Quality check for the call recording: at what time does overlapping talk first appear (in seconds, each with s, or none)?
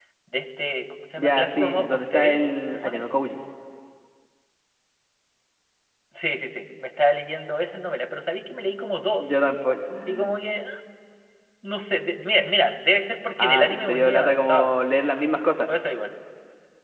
1.2 s